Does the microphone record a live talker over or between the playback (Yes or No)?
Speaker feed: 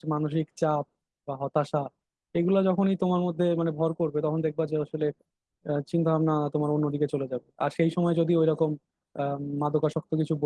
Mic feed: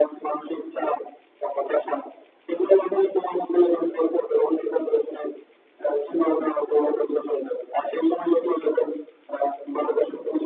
No